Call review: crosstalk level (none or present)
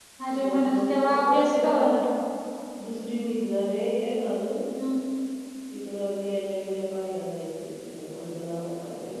present